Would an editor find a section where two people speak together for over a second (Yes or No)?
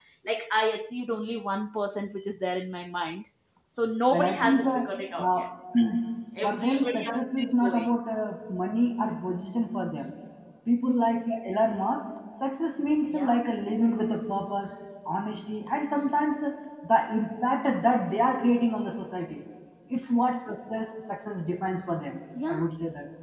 Yes